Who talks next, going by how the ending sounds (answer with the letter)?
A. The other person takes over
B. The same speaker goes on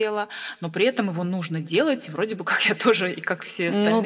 A